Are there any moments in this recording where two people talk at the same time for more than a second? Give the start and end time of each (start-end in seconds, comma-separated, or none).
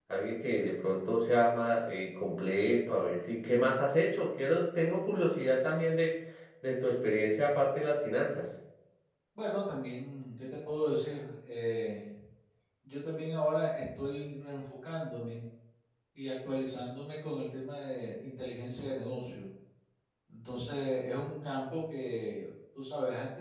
none